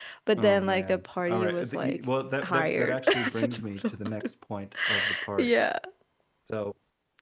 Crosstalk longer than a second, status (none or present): present